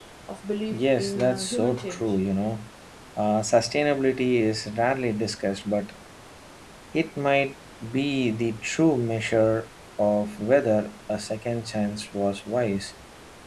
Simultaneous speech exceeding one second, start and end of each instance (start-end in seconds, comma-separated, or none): 0.7-2.0